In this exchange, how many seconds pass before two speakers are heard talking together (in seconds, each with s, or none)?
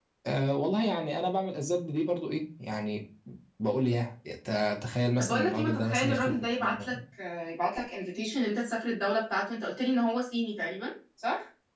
5.2 s